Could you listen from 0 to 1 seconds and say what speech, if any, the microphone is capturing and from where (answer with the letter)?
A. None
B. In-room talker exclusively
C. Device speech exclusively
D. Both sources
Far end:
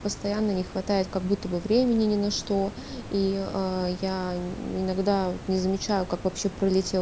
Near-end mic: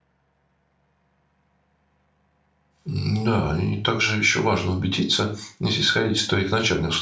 A